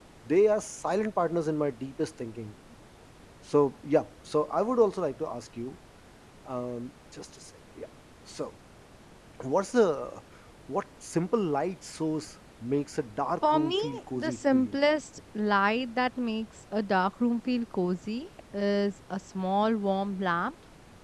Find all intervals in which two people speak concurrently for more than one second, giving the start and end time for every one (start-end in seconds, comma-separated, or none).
13.5-14.7